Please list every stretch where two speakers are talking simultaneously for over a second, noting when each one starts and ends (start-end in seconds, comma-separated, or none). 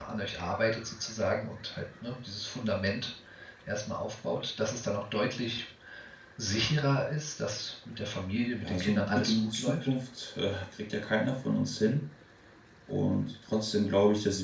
8.6-9.9